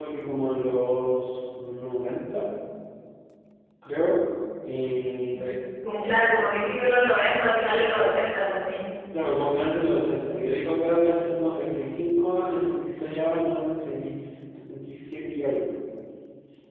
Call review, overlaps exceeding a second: none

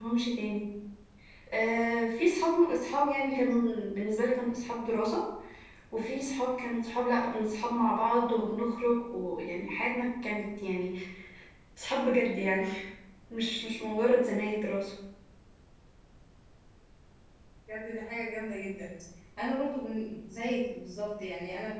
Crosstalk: none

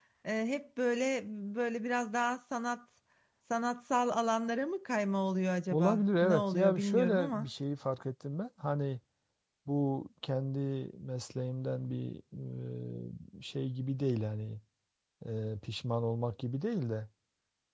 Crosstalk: present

